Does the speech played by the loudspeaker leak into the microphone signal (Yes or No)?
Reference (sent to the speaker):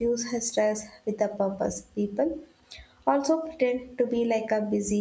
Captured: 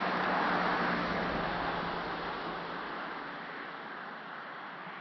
No